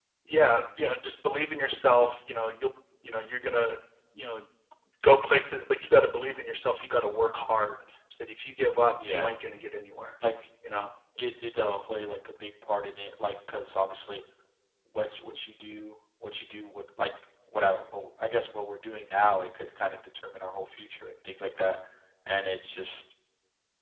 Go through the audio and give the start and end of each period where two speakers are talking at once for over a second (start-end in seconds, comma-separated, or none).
none